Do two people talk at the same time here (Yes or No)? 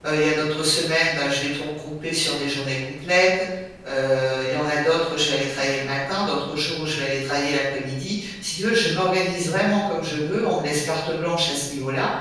No